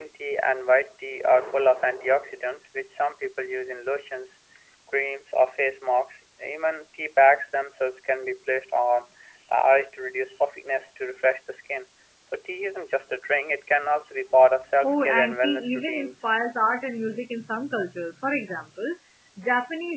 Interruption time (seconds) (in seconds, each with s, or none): 14.8 s